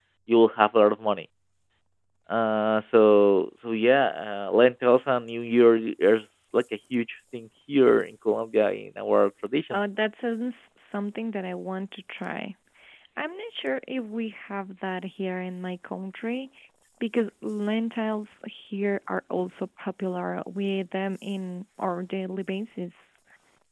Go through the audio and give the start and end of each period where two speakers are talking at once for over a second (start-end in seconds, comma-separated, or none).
none